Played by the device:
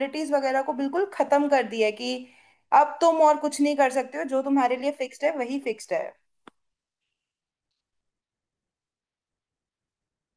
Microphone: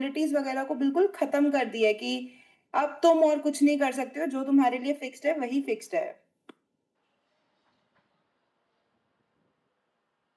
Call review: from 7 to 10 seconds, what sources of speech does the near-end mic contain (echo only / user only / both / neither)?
neither